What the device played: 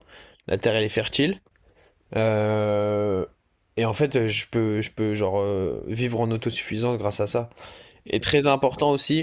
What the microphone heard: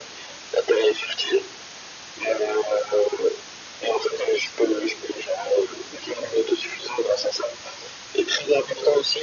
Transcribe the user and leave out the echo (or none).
none